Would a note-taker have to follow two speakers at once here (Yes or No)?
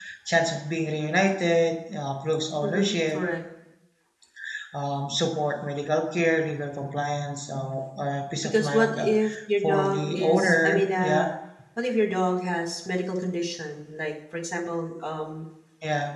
Yes